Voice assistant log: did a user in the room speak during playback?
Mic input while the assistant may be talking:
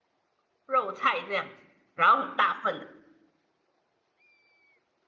Yes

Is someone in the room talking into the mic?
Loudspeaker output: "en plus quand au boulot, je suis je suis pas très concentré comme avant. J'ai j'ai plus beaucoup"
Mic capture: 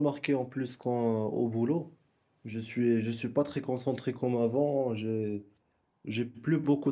No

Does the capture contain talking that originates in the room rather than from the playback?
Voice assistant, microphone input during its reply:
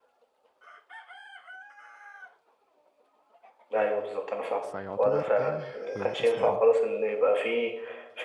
Yes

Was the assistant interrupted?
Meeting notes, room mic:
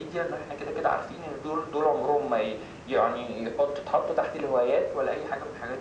No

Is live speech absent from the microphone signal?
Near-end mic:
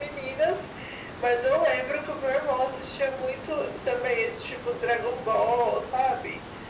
Yes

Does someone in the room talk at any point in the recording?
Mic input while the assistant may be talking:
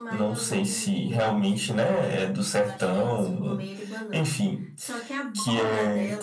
Yes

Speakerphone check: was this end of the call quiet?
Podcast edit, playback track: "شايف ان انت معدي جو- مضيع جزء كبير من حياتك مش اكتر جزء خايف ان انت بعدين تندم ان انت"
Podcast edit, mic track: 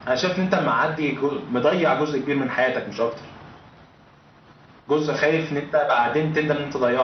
Yes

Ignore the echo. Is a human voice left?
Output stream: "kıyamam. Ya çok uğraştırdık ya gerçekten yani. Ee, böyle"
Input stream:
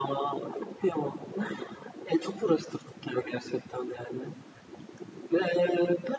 No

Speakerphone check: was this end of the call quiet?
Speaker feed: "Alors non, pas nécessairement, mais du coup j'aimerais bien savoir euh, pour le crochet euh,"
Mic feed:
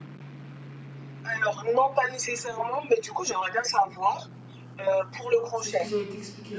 No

